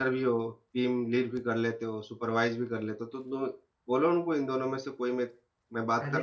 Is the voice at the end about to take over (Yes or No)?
Yes